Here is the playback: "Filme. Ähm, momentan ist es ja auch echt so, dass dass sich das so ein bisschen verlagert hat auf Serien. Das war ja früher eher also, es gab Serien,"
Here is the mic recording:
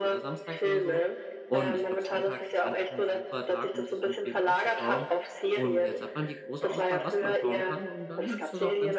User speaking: Yes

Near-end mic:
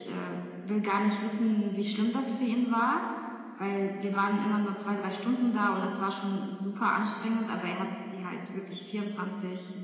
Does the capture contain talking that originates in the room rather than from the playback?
No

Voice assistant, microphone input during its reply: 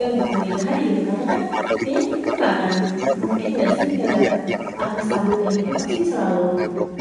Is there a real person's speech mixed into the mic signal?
Yes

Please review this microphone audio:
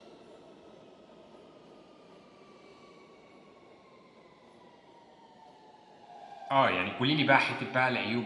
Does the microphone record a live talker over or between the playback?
Yes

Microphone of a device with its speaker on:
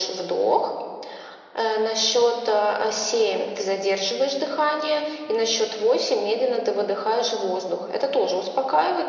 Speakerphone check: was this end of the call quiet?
Yes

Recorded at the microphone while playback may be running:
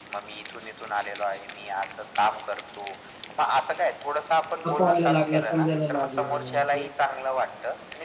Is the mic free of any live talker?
No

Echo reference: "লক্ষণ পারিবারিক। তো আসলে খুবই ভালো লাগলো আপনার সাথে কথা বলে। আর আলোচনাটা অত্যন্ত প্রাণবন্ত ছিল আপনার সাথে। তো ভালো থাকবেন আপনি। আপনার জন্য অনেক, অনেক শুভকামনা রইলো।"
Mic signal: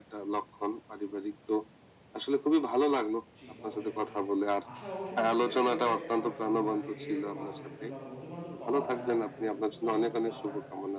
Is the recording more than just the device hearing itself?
Yes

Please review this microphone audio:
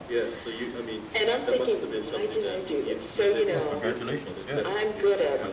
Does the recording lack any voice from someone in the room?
No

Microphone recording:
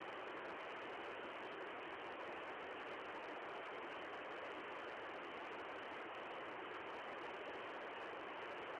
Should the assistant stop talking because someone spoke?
No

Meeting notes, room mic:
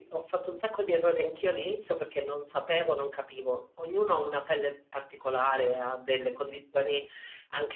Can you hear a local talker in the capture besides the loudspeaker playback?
No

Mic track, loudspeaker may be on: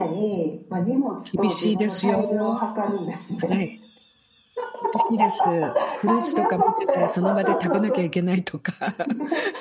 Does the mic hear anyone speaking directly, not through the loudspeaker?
Yes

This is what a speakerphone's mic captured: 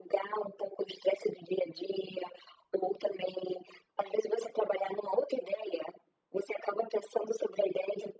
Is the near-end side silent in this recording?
Yes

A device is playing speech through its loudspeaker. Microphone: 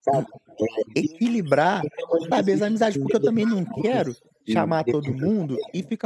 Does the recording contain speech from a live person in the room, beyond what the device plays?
Yes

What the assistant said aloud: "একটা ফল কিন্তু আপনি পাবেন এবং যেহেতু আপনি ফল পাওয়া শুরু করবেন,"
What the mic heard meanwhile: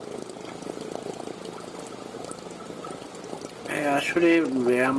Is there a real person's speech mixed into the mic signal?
Yes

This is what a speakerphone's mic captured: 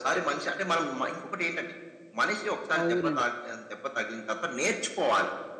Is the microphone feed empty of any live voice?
No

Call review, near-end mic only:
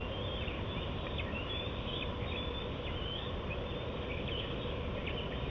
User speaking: No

